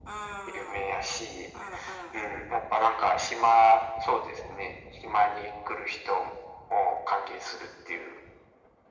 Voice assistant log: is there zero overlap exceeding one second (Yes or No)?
Yes